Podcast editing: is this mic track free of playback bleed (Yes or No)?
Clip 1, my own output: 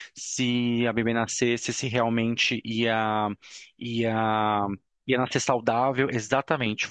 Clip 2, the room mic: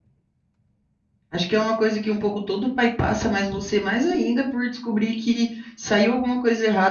Yes